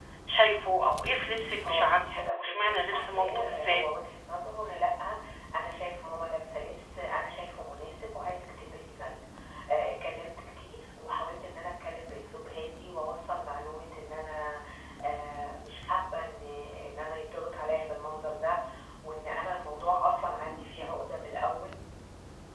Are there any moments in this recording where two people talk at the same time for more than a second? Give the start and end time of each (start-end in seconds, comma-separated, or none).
1.6-3.8